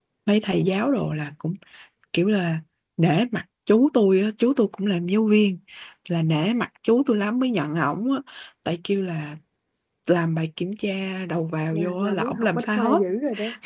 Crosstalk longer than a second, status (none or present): present